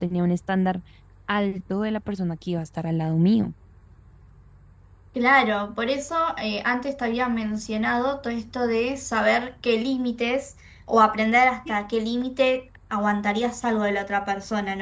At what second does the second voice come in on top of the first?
none

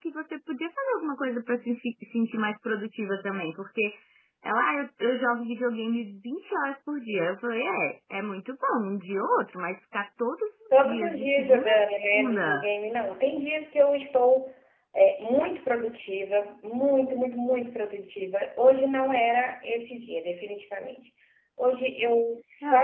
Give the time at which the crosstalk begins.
10.7 s

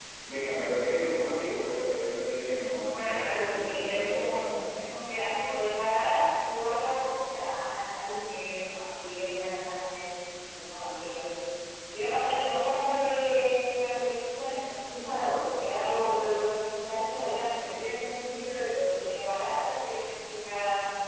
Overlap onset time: 2.8 s

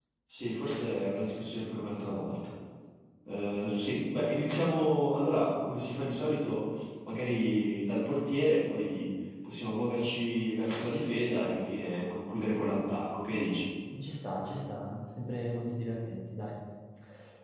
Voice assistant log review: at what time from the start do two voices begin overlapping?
none

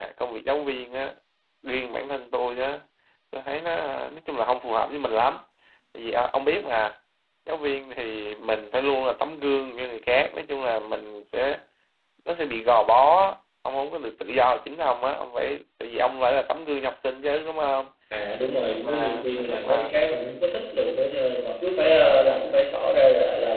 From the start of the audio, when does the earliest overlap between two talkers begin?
18.6 s

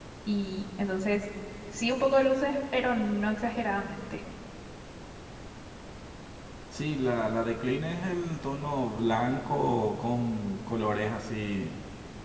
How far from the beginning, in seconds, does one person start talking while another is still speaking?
none

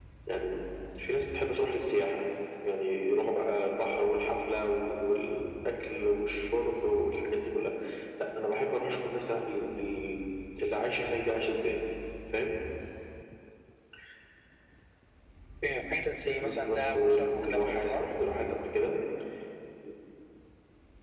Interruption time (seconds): 16.4 s

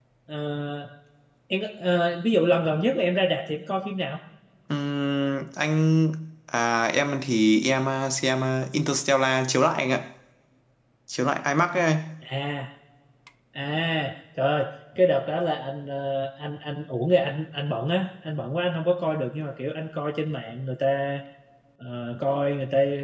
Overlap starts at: none

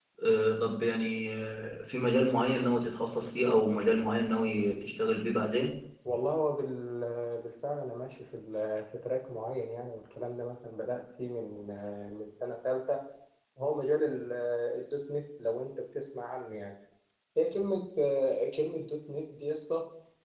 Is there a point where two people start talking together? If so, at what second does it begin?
none

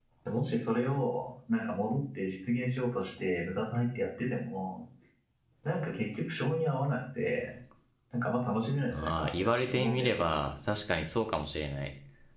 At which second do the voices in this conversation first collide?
8.9 s

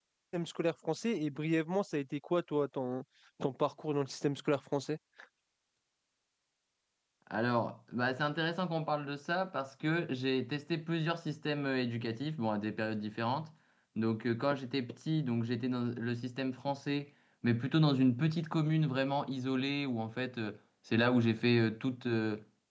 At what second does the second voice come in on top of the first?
none

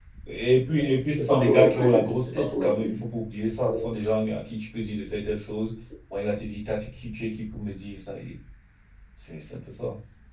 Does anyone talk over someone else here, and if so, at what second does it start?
1.2 s

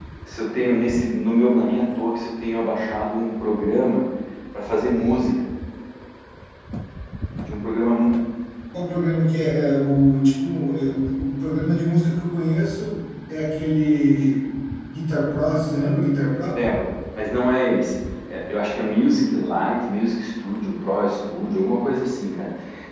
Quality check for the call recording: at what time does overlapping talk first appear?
none

